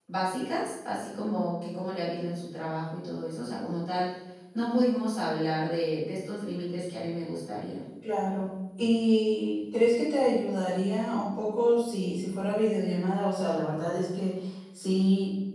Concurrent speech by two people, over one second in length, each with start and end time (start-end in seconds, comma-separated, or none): none